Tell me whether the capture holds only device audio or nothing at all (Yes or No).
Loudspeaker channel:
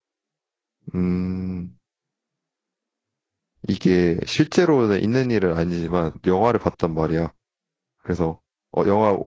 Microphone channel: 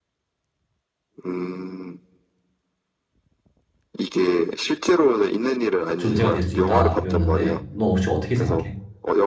No